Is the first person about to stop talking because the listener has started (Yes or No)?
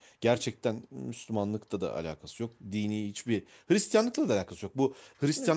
No